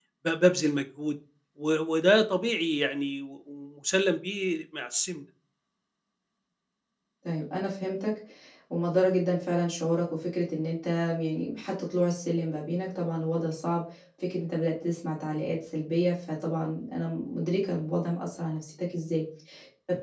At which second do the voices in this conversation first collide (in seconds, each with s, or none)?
none